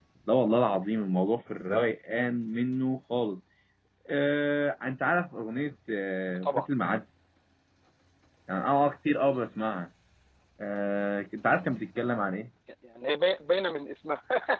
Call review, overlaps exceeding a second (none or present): none